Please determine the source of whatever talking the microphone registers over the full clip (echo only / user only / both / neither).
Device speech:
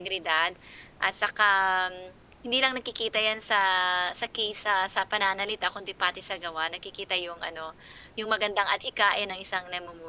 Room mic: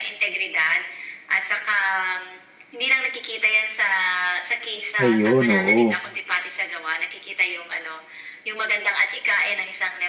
both